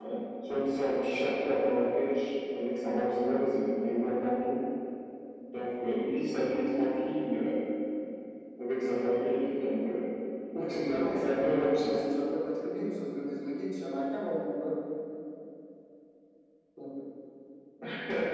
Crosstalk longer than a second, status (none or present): present